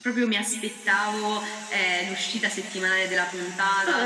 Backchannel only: Yes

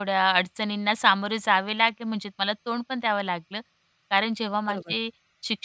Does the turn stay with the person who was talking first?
Yes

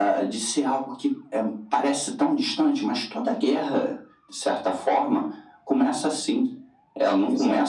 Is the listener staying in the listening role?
Yes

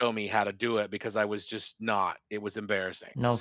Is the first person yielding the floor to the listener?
Yes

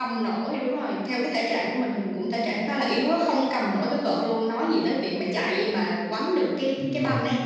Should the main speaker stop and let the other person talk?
Yes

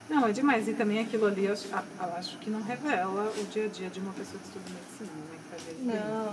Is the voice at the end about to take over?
Yes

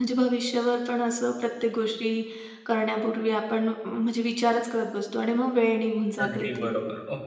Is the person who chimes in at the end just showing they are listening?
No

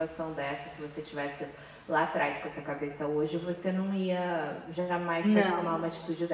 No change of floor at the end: Yes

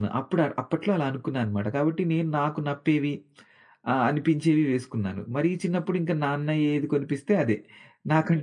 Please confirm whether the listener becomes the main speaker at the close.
No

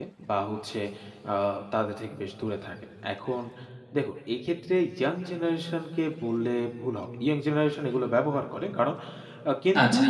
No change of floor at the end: Yes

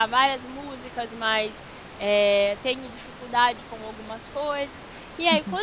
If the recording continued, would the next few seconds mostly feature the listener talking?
No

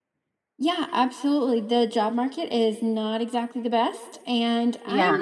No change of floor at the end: Yes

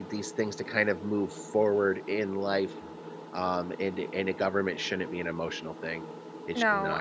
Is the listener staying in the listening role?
No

